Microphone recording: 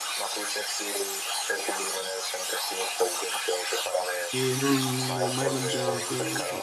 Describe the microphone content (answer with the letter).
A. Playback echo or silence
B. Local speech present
B